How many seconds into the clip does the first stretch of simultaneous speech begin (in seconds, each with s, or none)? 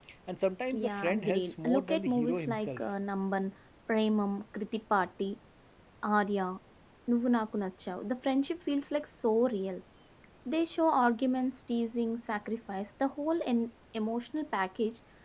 0.7 s